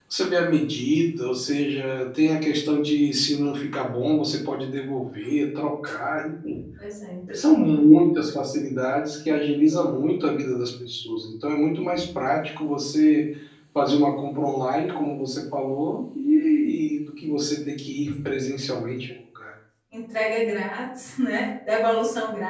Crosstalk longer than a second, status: none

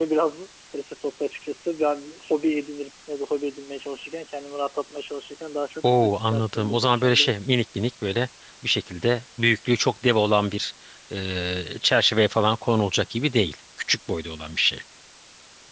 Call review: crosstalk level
present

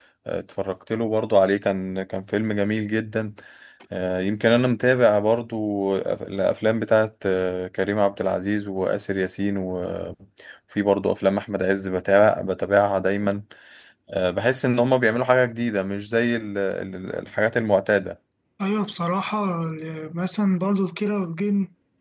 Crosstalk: none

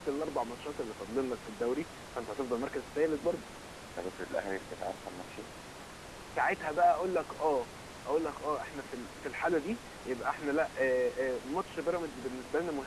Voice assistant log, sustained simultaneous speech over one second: none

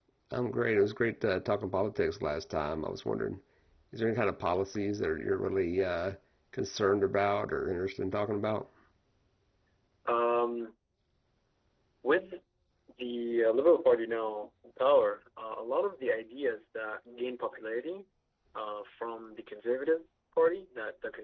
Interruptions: none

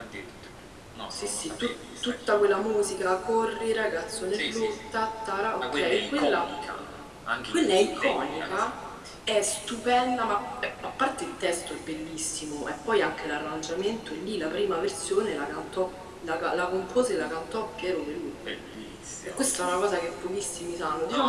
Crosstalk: present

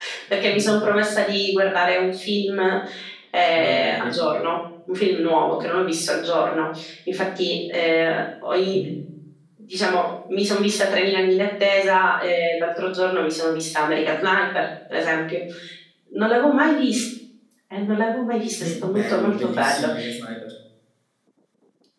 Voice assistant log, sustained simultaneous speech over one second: present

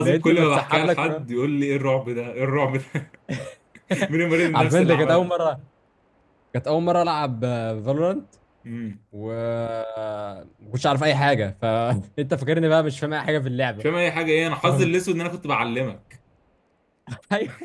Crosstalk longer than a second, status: present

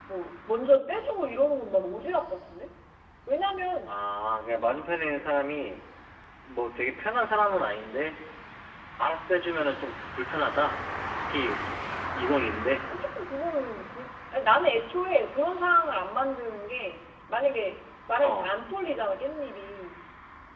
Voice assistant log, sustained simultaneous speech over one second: none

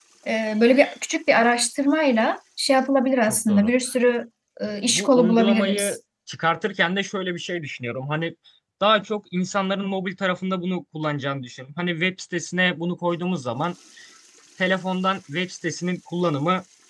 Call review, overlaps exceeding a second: present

